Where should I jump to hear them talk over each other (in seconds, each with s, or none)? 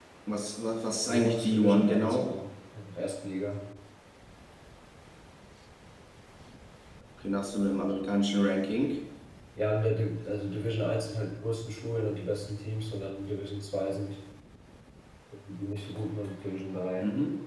1.1 s